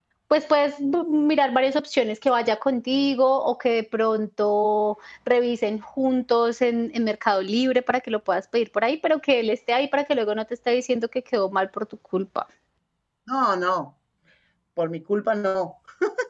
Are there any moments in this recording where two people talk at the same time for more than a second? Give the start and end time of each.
none

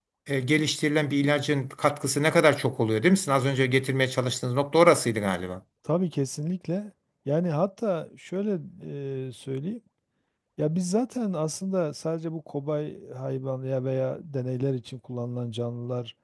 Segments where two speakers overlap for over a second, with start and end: none

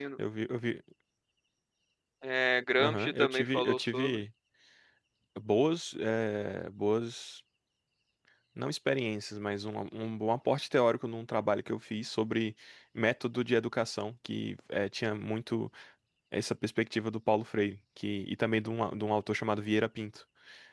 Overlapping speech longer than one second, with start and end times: 2.8-4.2

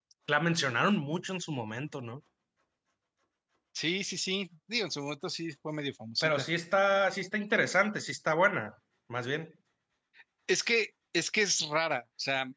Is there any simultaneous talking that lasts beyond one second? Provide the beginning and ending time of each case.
none

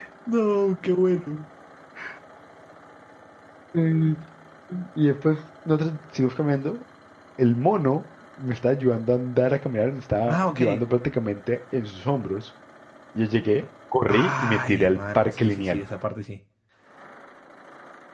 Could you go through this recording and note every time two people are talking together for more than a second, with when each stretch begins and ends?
14.1-15.8

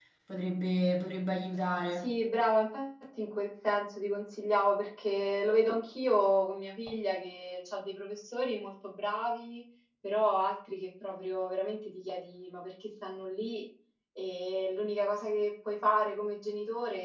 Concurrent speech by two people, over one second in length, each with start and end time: none

